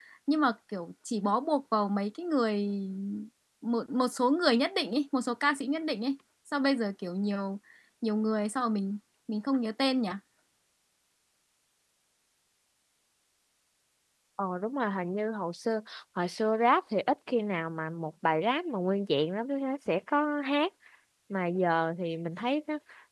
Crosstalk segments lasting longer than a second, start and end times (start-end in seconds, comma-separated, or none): none